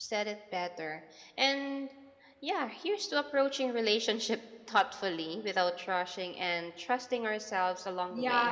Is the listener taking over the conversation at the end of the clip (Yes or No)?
Yes